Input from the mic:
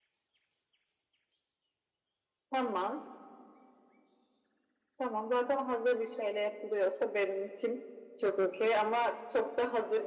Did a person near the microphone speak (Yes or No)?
No